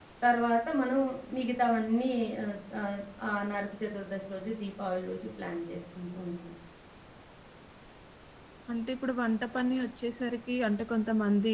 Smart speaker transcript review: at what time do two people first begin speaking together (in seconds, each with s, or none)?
none